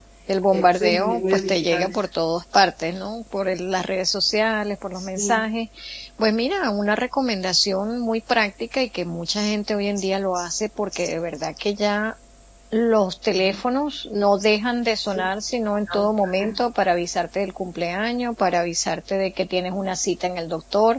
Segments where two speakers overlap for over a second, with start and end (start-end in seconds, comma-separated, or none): 0.5-2.1